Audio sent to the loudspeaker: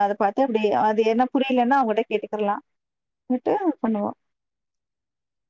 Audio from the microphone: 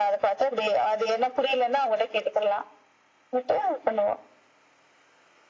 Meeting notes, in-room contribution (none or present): none